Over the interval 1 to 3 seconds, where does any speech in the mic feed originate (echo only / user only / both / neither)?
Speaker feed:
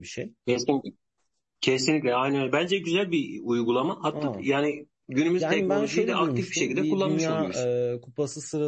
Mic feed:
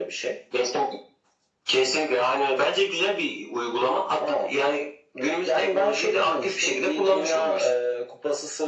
echo only